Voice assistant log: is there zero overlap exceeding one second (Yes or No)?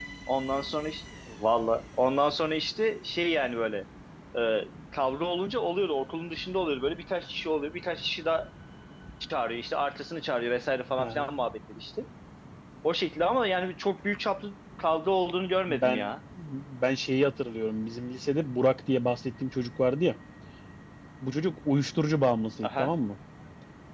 Yes